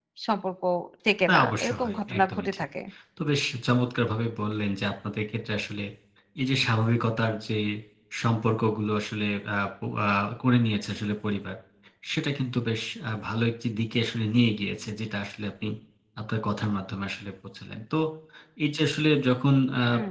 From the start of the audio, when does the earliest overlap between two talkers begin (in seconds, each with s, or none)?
1.3 s